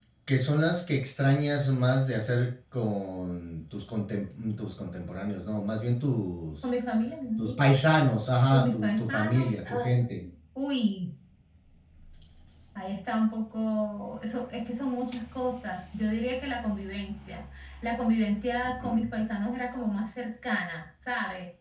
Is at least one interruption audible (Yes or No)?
Yes